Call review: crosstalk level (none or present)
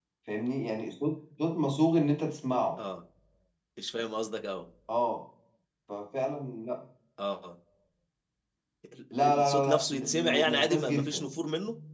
present